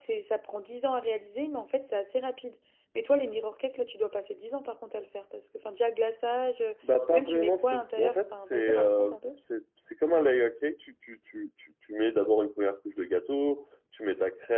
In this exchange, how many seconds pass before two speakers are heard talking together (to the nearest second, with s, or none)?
7 s